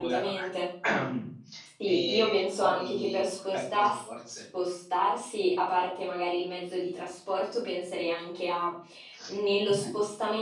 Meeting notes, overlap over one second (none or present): present